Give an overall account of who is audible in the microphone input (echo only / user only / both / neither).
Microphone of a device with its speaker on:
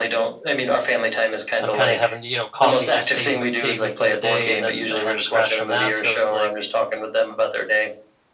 both